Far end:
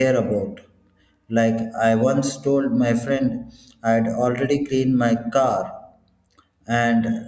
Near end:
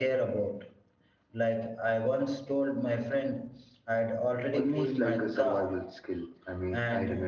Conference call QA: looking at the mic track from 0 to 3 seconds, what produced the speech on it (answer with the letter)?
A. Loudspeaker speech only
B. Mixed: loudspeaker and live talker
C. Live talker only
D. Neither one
A